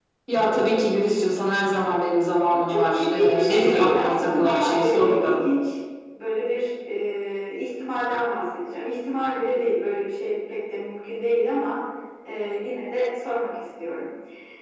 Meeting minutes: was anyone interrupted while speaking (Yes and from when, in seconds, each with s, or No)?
Yes, from 2.5 s